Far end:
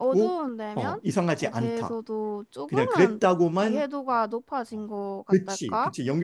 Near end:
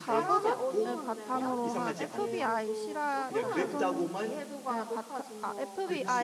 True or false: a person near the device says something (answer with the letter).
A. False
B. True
B